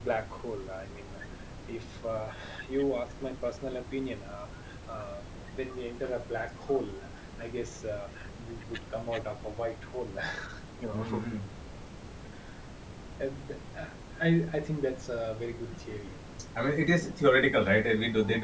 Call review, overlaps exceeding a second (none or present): none